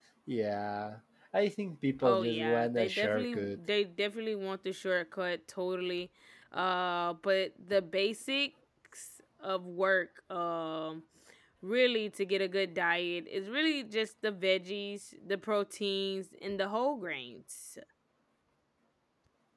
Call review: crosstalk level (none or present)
present